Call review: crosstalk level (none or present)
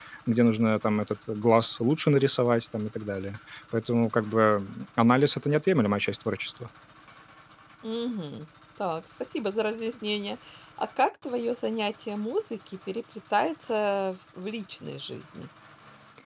none